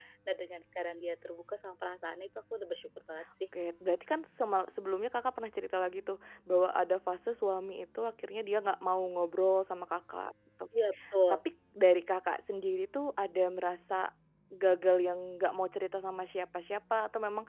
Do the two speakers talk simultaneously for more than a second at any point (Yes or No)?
No